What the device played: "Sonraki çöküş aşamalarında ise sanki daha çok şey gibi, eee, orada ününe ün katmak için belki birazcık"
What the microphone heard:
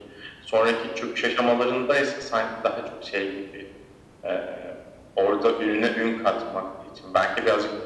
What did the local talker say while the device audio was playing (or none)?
none